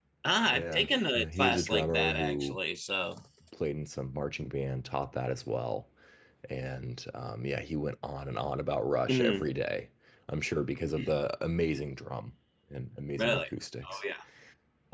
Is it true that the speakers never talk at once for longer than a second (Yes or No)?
No